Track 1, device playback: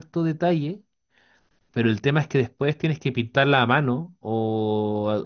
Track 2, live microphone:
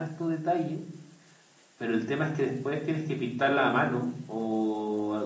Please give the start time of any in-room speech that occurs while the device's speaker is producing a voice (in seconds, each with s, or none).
none